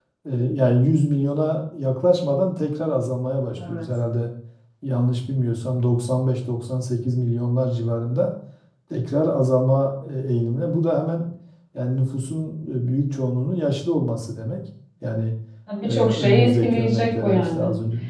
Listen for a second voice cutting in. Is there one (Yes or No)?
Yes